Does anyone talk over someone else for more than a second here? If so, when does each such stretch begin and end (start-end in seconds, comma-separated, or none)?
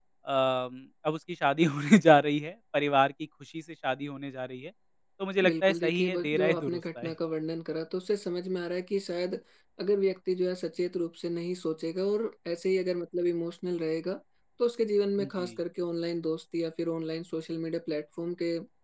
5.4-7.1